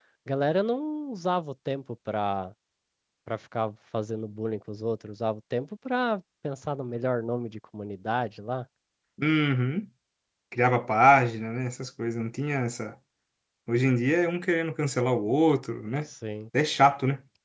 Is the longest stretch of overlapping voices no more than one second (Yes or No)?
Yes